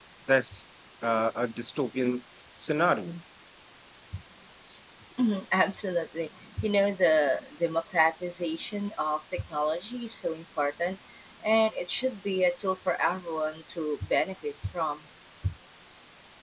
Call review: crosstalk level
none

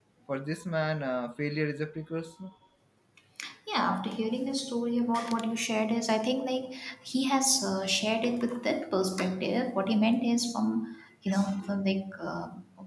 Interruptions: none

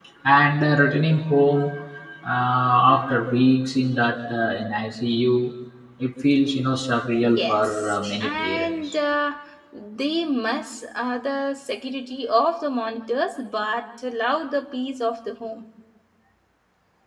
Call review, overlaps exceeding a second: present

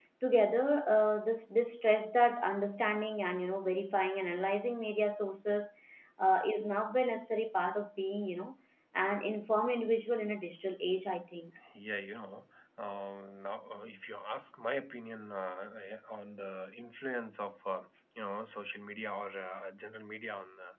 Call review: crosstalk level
none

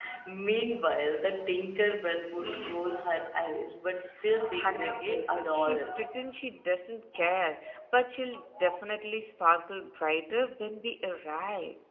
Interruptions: present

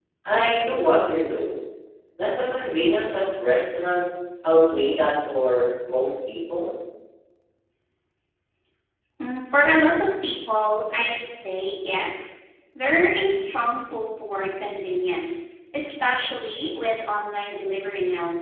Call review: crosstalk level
none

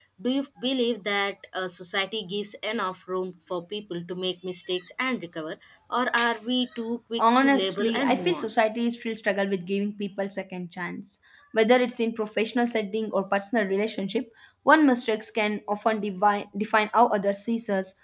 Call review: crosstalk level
present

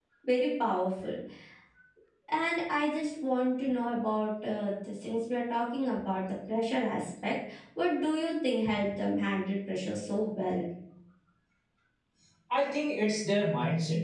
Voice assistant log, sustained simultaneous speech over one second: none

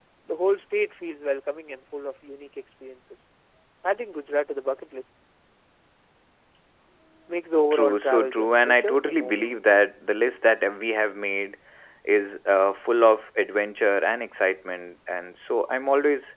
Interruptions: present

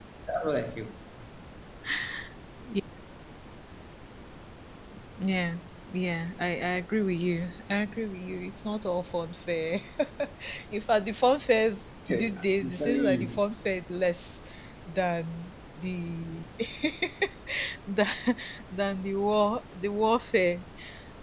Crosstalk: present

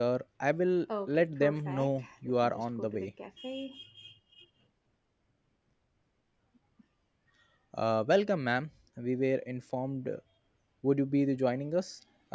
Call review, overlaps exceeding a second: present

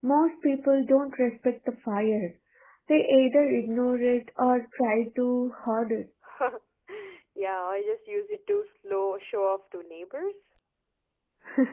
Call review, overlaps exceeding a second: none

